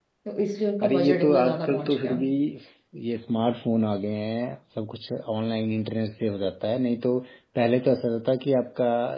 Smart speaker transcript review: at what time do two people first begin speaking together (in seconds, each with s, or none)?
0.8 s